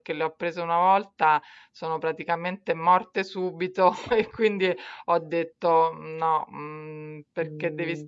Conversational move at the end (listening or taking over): listening